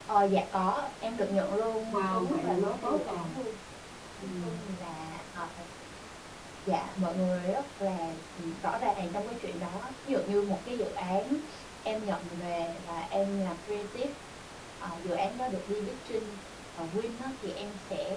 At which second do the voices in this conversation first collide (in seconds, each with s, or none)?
1.9 s